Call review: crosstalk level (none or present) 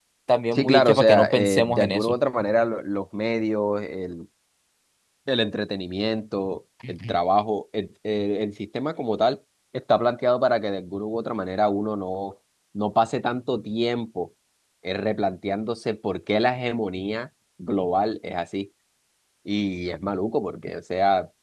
present